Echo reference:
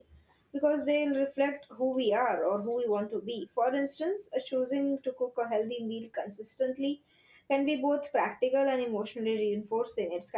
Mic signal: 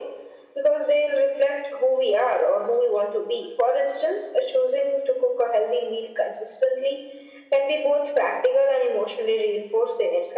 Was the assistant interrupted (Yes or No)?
No